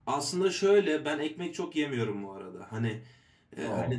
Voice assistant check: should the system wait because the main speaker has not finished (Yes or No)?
Yes